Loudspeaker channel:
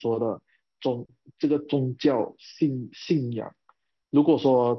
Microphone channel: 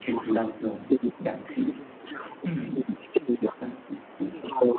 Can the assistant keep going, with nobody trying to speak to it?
No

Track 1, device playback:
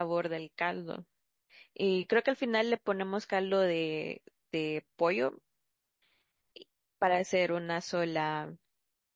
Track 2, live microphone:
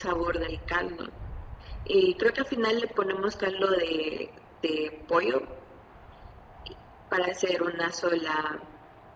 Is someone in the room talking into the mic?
No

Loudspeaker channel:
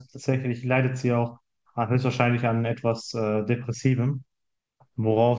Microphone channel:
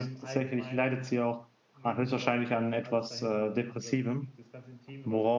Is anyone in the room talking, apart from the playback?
Yes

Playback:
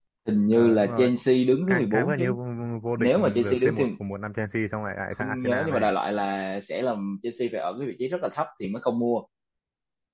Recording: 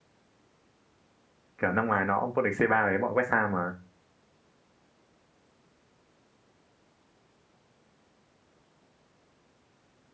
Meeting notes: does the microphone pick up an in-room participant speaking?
Yes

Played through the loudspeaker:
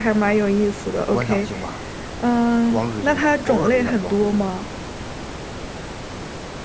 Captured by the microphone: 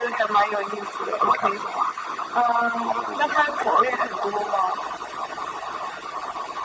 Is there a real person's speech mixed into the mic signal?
No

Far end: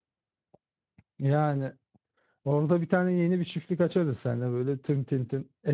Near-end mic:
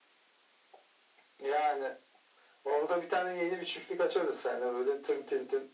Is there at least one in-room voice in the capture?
No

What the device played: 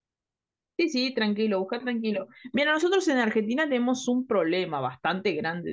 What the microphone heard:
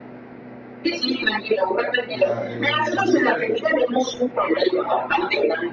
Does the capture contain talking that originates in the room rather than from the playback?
Yes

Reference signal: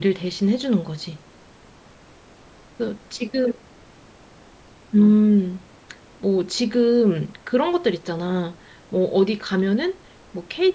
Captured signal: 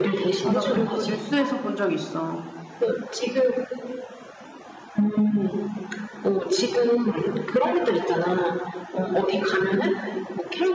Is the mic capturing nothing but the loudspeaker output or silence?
No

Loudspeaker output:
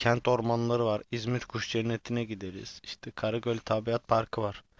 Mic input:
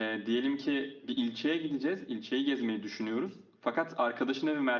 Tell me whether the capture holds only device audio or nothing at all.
No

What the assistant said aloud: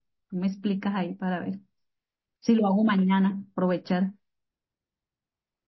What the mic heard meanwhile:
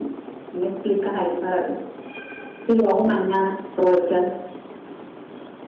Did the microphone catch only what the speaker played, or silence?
Yes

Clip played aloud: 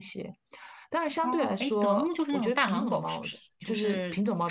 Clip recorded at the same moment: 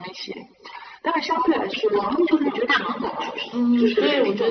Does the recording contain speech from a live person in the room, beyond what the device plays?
Yes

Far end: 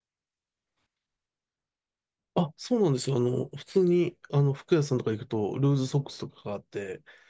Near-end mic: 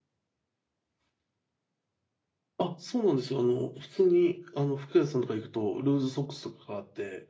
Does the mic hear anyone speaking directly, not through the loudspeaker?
No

